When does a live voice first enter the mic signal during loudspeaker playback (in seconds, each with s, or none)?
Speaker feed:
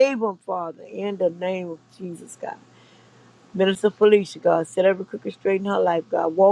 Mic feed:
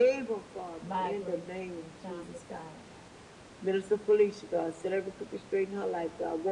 0.8 s